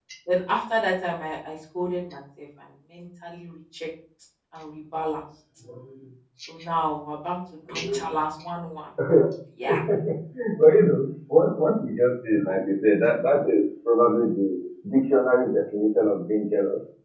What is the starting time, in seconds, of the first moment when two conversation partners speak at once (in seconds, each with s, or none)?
none